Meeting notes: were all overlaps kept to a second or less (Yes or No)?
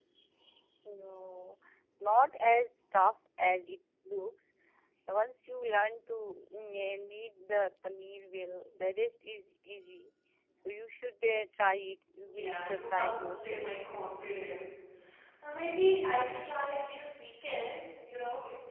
No